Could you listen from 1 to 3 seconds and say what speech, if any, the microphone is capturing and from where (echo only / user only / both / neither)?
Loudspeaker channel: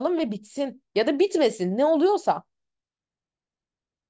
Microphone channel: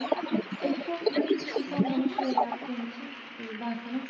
both